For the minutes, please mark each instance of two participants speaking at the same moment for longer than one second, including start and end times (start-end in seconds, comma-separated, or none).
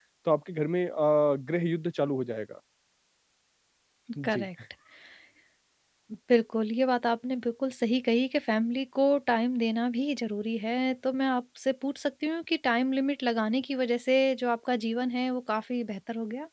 none